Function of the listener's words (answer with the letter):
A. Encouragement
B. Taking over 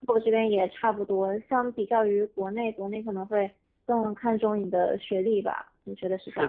B